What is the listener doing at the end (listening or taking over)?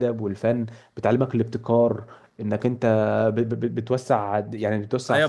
taking over